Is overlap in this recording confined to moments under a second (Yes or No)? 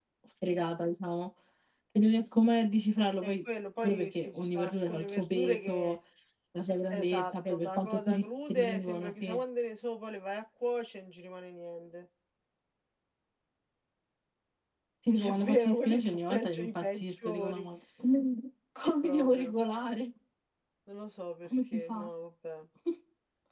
No